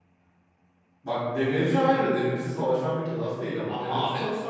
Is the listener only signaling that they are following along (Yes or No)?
Yes